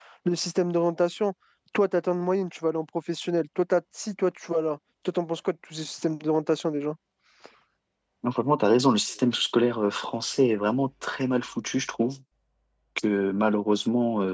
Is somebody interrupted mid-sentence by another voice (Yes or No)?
No